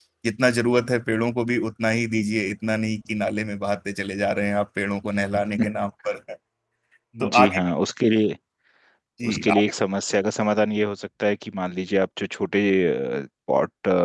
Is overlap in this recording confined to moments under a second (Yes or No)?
Yes